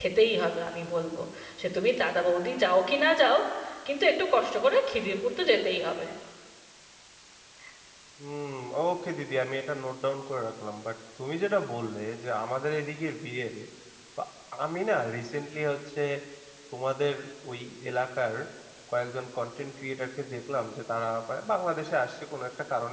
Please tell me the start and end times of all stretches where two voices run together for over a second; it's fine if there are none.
none

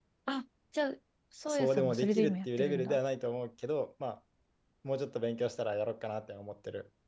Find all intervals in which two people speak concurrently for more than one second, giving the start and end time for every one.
1.5-3.0

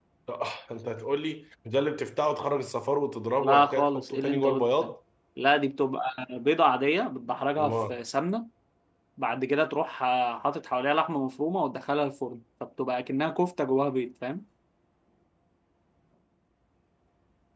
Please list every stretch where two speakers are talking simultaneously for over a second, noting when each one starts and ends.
3.4-4.9

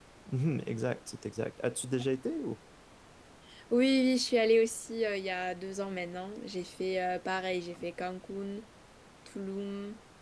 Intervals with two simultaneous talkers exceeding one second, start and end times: none

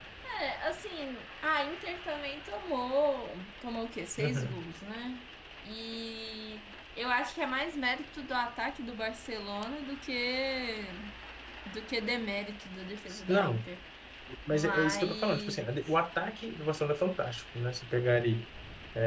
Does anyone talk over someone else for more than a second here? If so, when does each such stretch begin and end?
14.5-15.7

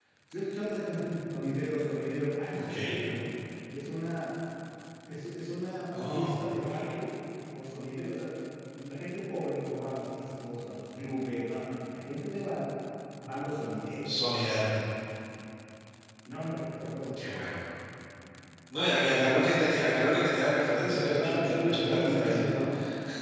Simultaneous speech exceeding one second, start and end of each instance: 20.8-22.6

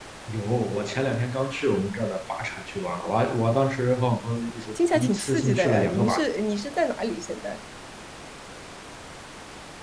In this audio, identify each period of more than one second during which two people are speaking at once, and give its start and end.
4.8-6.2

